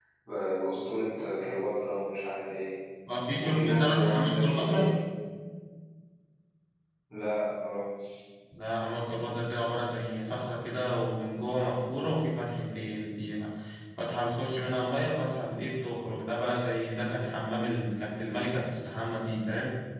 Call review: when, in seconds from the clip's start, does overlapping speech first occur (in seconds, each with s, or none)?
3.4 s